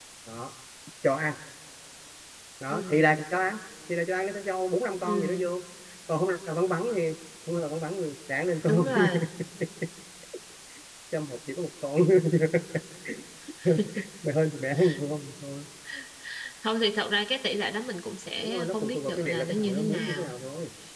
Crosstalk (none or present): present